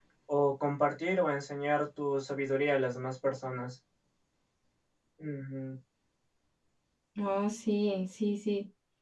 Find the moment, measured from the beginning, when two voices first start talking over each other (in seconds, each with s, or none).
none